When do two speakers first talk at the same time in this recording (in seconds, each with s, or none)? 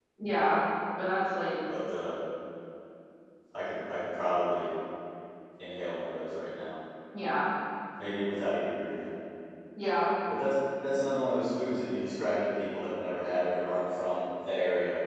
none